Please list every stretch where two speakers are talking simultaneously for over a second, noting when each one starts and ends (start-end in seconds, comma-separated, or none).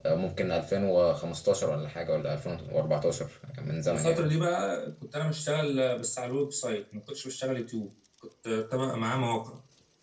none